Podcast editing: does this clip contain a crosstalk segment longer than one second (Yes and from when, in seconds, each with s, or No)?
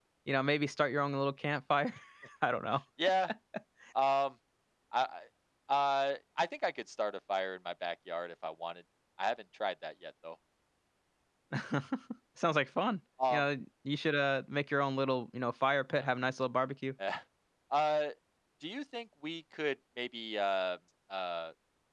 No